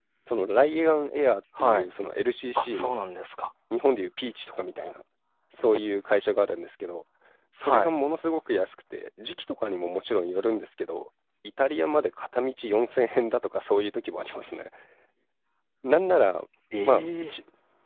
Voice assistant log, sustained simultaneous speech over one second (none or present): none